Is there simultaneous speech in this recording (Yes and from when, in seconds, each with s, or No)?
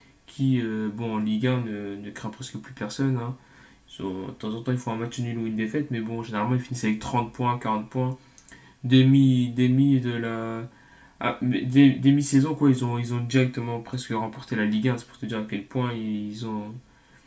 No